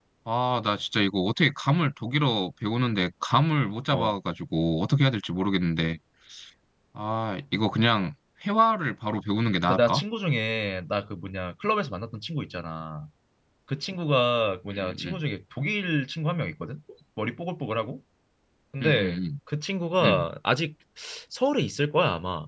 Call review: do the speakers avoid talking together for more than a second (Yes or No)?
Yes